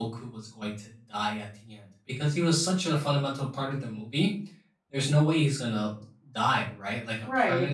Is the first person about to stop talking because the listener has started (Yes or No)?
No